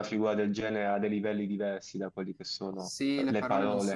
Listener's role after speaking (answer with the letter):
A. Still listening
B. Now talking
B